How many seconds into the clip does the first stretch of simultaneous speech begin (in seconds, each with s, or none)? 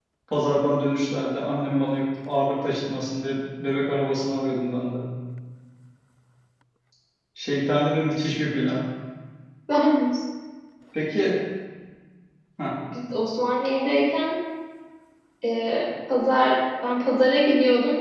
none